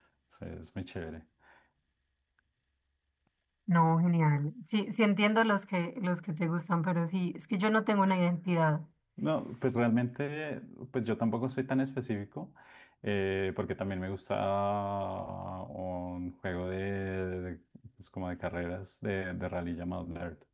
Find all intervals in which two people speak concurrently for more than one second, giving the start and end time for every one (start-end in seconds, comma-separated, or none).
none